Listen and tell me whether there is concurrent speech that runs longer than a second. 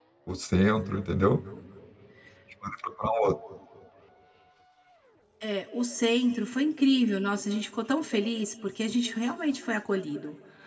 No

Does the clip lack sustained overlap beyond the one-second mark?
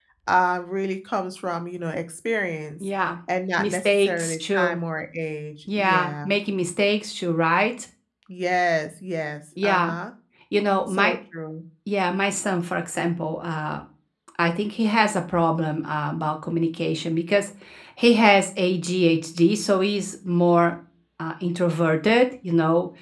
No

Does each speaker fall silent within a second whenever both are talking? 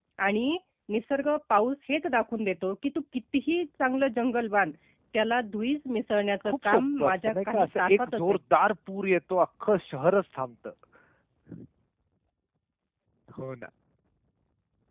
No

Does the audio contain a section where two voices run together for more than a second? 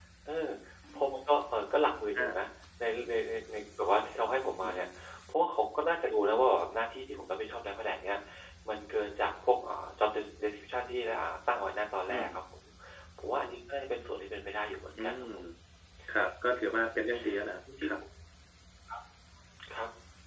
No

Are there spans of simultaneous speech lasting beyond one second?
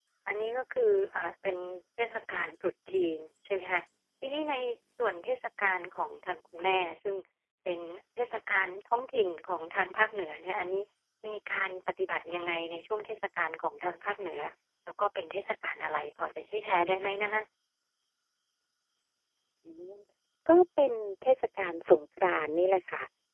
No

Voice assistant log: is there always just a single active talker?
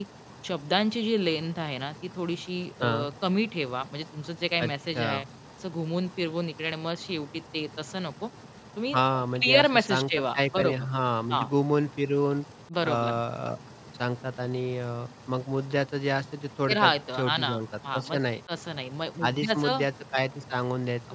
No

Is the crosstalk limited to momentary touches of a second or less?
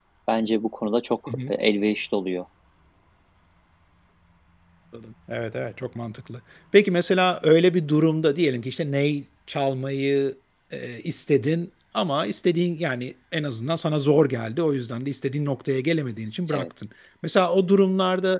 Yes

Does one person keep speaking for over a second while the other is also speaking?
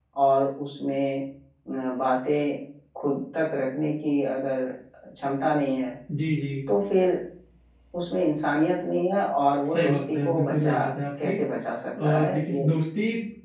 Yes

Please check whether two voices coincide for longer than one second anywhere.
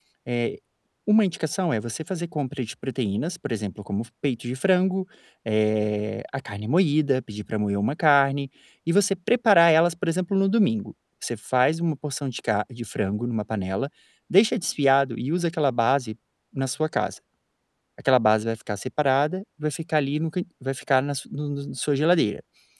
No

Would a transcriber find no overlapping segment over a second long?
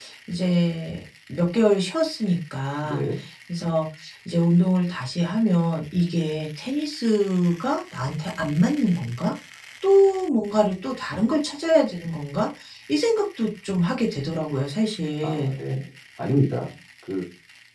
Yes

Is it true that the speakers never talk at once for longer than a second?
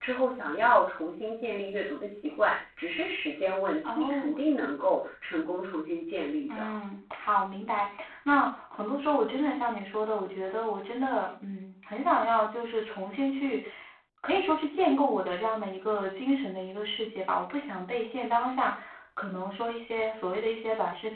Yes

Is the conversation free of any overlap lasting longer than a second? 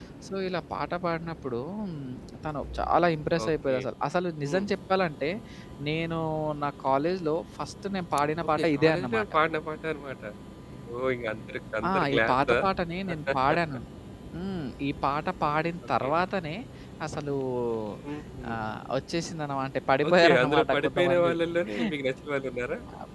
No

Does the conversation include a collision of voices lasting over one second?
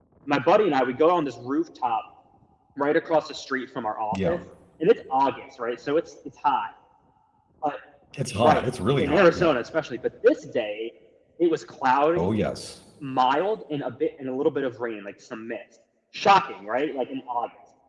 No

